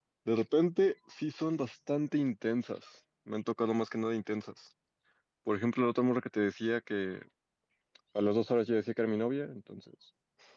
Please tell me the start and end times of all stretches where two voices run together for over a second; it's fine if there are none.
none

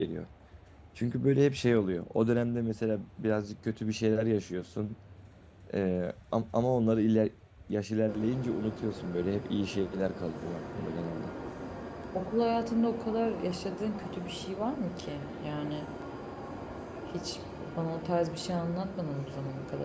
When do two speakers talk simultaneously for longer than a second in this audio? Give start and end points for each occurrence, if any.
none

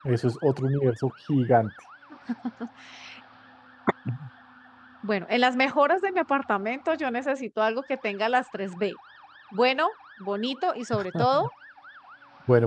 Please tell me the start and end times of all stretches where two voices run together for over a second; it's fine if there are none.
none

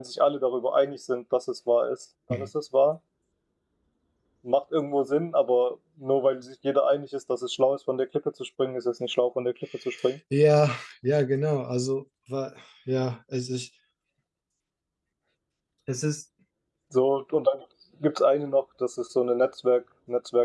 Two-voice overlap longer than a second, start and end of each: none

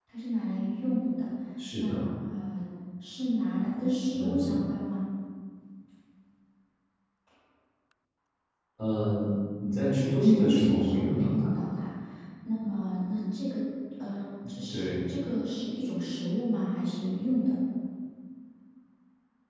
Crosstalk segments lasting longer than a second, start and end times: 9.9-11.5

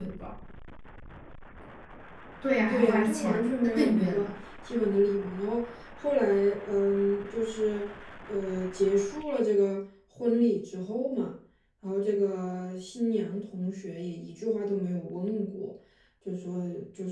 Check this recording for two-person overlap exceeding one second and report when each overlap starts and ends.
2.7-4.3

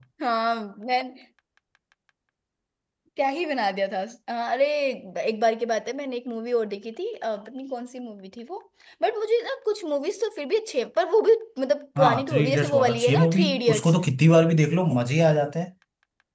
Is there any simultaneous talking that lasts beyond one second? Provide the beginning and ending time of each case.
12.0-13.9

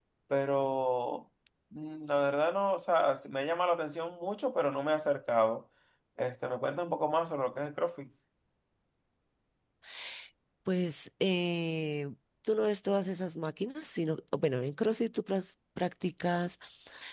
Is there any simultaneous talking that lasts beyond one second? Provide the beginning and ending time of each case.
none

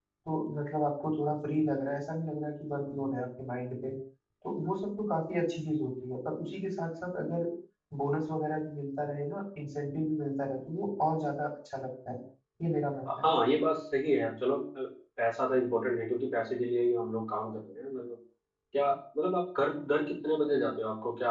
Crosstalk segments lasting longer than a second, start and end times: none

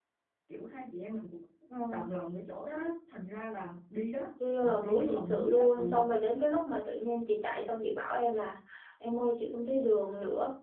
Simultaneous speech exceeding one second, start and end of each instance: 4.6-6.0

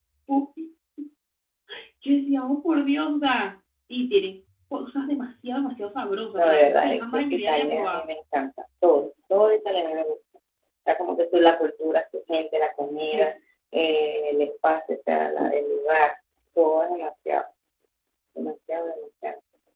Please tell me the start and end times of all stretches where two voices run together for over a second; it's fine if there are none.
6.4-8.0

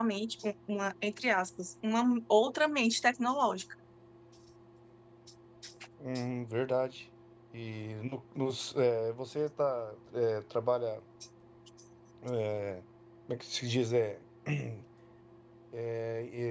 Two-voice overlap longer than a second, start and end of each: none

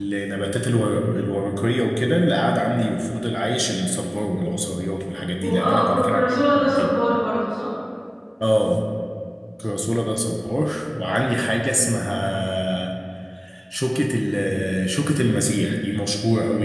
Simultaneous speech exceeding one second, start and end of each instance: 5.4-6.9

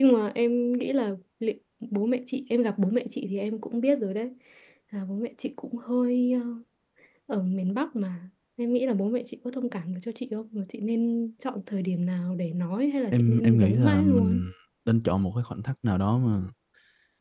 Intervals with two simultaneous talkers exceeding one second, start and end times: 13.1-14.4

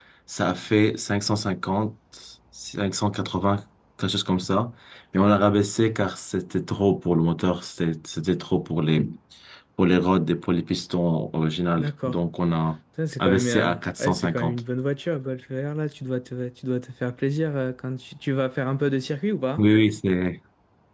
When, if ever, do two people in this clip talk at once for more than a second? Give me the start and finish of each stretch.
13.2-14.6

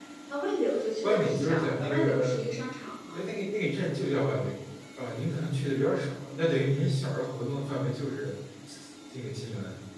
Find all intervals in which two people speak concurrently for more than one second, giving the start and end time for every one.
1.0-2.4

